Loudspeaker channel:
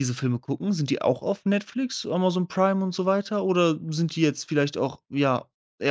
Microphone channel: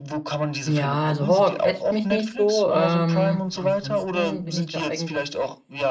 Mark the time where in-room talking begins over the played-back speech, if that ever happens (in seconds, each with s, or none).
0.7 s